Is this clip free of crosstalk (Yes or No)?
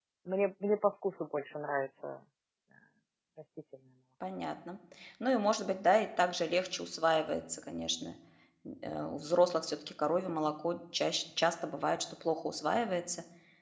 Yes